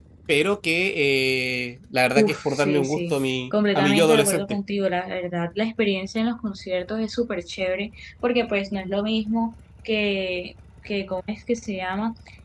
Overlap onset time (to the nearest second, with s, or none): 2 s